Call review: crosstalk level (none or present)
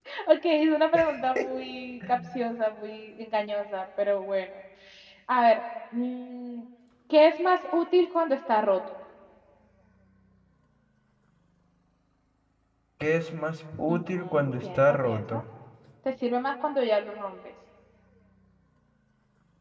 present